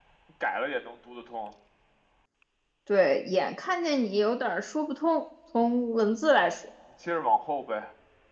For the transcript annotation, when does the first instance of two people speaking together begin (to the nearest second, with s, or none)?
none